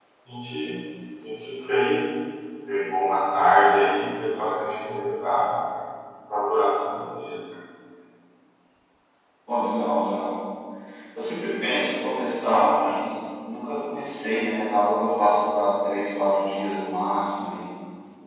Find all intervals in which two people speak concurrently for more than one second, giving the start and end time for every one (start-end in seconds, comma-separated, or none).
none